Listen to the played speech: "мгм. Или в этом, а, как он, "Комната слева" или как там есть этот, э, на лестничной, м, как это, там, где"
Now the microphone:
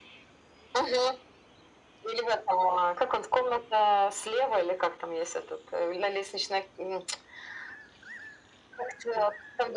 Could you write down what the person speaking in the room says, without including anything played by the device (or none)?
none